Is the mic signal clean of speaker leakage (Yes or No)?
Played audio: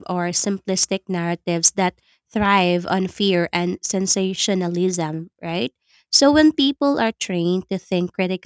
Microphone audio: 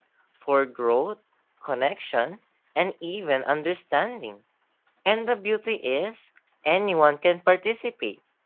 Yes